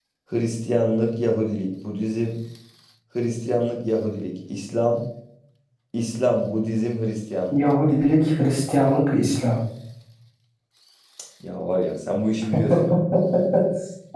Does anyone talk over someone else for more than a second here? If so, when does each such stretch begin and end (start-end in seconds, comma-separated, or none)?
none